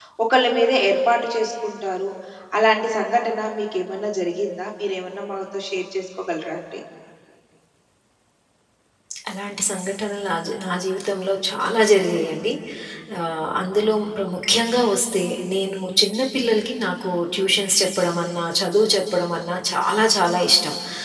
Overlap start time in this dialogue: none

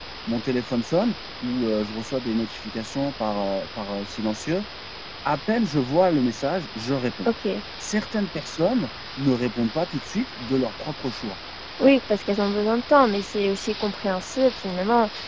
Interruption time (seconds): none

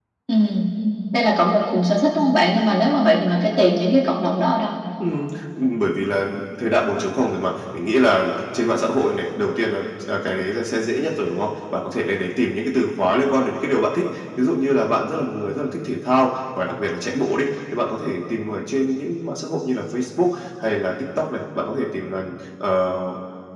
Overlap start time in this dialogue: none

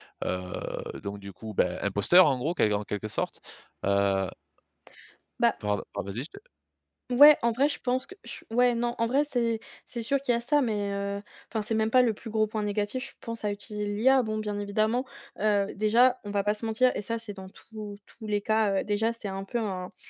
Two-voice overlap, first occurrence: none

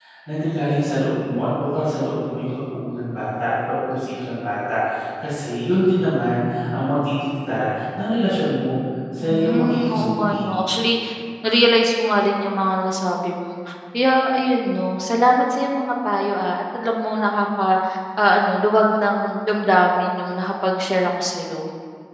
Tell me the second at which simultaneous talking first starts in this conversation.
9 s

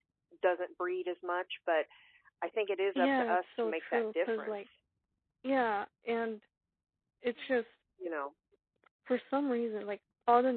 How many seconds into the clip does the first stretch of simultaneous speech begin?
3 s

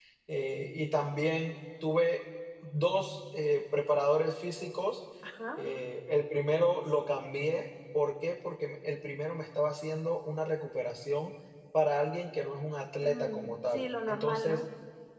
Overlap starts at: 13 s

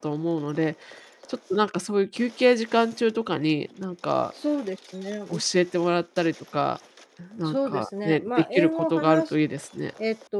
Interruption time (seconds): 7 s

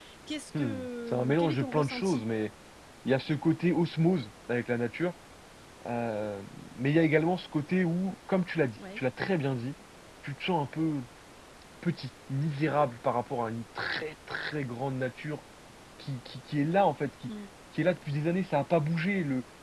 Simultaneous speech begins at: 1 s

